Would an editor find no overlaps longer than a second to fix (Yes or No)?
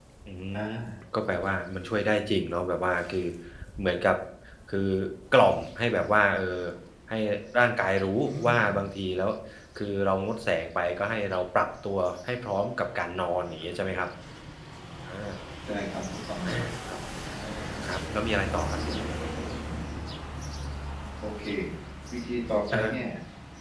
Yes